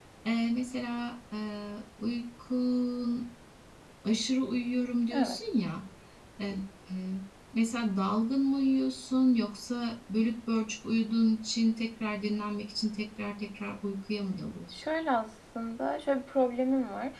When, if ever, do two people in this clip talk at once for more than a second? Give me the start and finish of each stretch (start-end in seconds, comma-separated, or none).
none